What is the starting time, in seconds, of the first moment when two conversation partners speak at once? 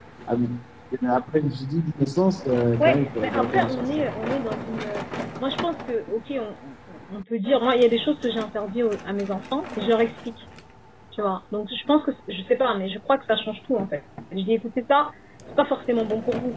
3 s

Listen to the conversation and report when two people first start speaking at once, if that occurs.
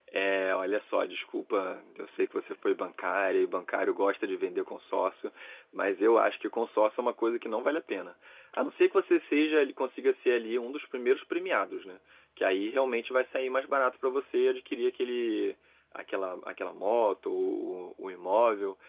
none

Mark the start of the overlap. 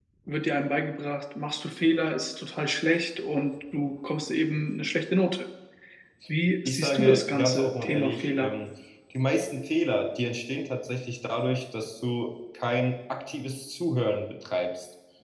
7 s

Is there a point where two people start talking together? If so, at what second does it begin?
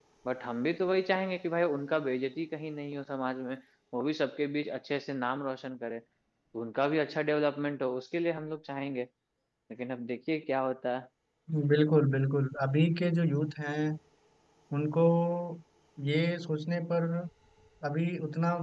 none

